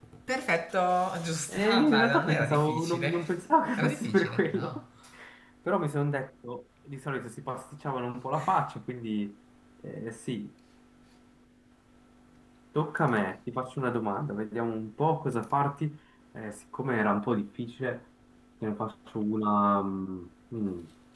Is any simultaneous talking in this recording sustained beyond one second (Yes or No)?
Yes